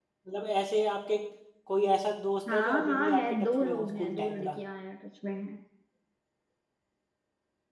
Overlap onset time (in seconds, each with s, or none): 2.5 s